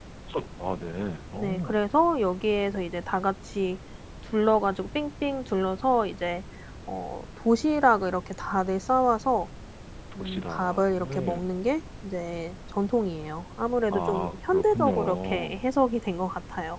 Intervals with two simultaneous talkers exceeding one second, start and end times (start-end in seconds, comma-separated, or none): 10.2-11.4, 13.9-15.5